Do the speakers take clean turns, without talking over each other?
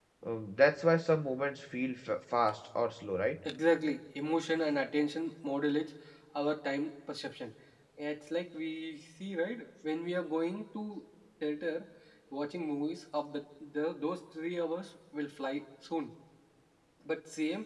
Yes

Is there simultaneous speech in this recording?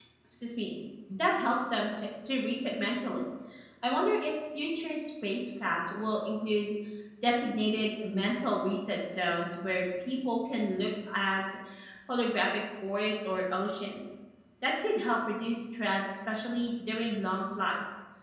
No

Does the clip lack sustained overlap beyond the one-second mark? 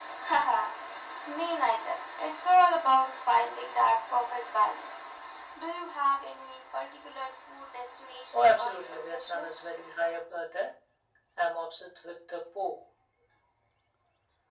No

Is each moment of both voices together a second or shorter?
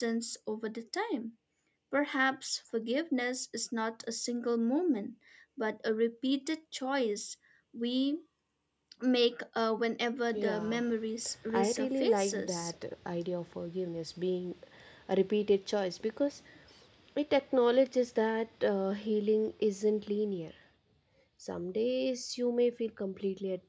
No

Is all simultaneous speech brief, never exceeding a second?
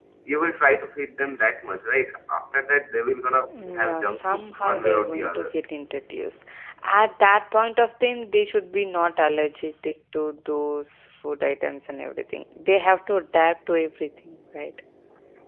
No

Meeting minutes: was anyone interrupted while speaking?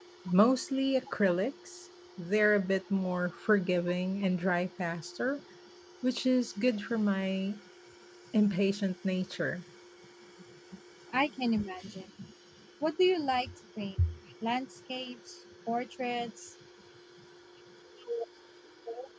No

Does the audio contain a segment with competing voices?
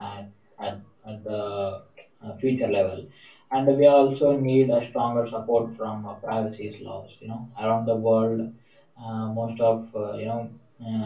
No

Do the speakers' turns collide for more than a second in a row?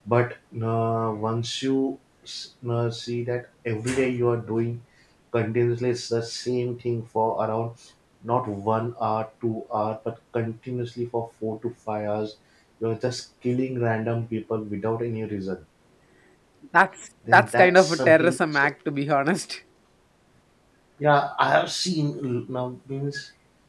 Yes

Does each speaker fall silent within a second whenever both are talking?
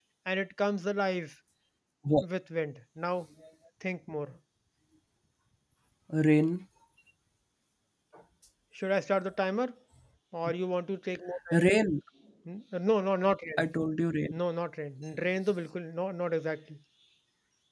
Yes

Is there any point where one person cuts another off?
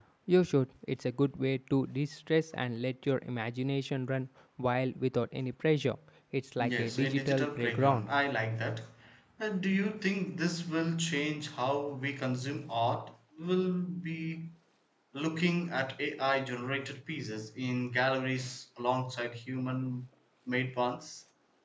Yes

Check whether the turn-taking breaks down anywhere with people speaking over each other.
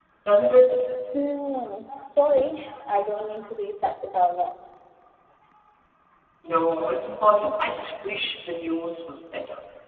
No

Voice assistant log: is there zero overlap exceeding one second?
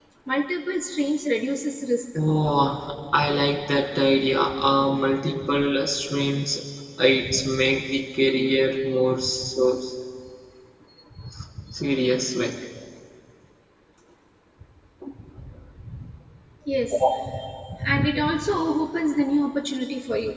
Yes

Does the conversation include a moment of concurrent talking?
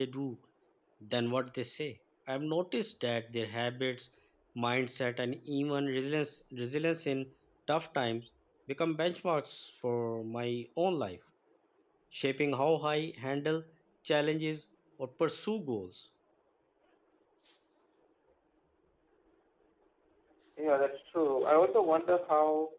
No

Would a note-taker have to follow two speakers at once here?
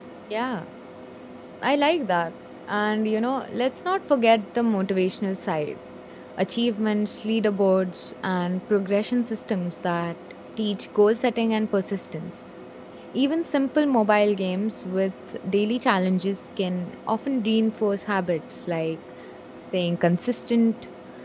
No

